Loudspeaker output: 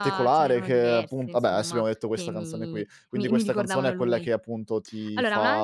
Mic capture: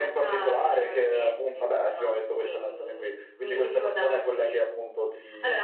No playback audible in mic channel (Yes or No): No